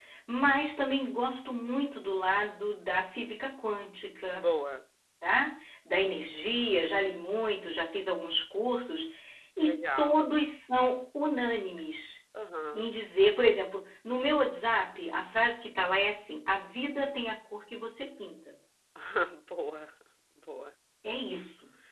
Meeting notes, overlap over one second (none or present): none